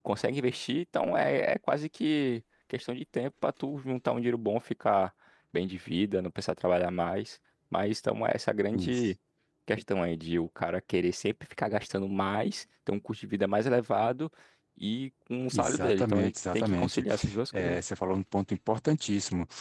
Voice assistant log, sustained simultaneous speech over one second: present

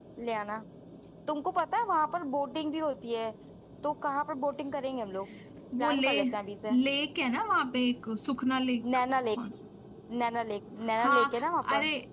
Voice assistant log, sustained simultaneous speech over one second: none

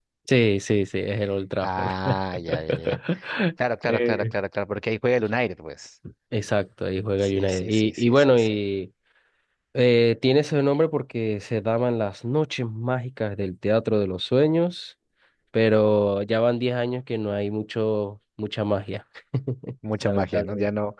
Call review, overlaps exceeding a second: present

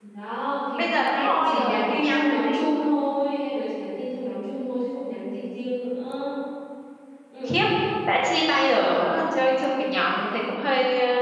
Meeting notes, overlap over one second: present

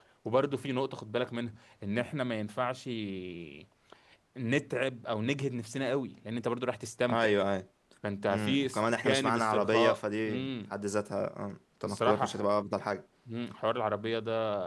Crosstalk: present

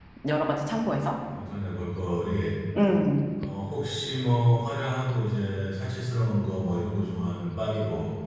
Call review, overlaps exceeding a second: none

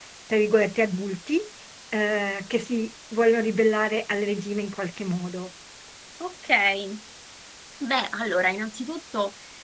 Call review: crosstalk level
none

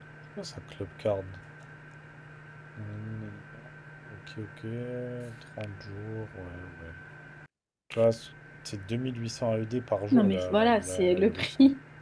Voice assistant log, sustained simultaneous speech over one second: present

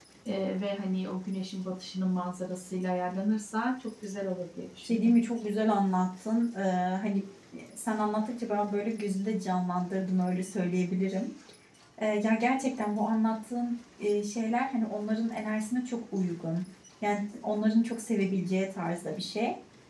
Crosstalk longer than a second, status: none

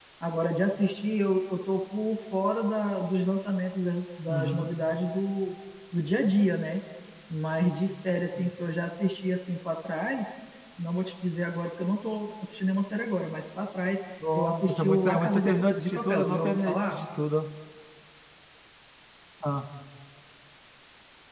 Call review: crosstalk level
present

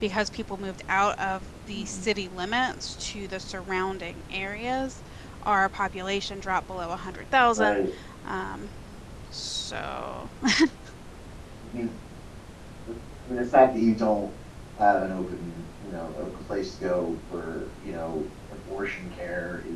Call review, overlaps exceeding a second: none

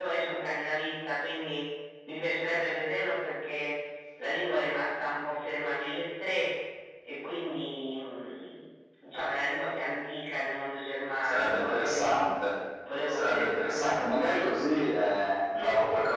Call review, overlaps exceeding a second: present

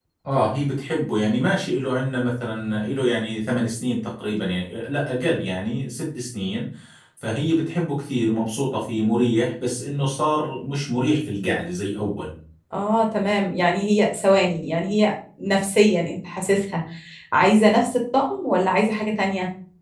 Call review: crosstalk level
none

